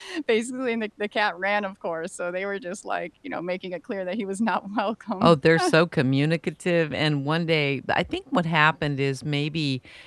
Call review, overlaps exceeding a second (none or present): none